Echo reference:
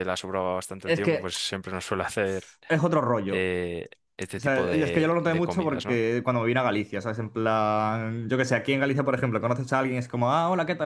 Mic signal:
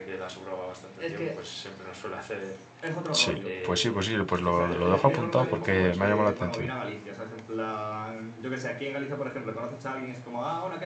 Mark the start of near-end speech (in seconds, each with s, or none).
3.1 s